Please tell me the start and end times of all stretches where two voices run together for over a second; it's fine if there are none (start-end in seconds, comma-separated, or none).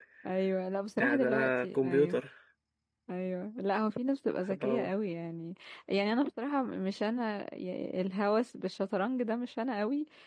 1.0-2.2